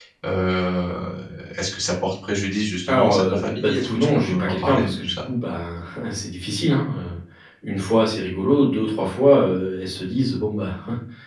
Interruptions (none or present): present